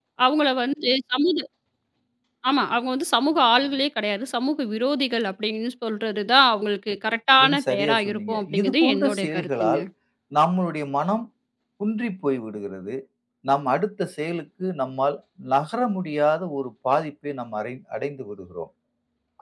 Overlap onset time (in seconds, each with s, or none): 7.4 s